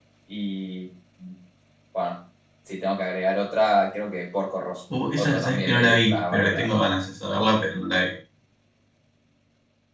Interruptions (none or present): present